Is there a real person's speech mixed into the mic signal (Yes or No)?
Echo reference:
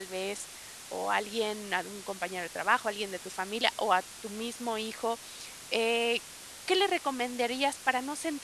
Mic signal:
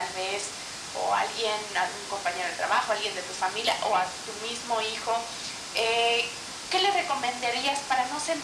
No